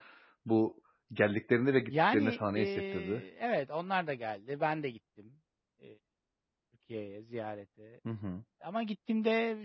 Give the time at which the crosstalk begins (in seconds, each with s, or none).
1.9 s